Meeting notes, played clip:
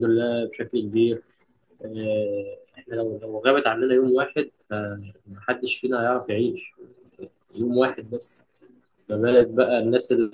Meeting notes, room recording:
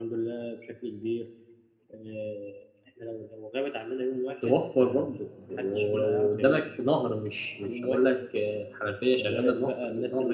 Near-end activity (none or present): present